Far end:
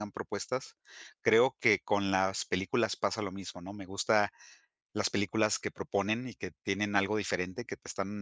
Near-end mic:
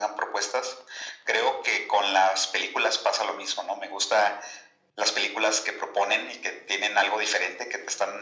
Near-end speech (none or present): none